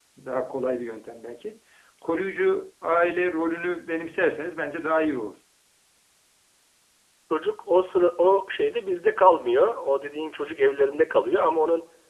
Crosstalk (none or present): none